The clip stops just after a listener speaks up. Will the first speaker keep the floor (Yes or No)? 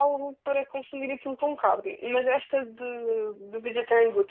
Yes